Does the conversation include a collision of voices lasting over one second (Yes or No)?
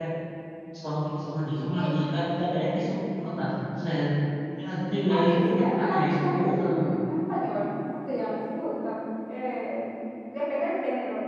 Yes